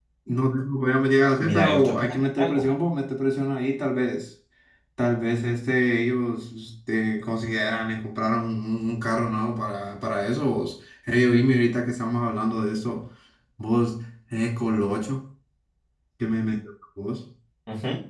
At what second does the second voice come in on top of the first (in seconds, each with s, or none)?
1.4 s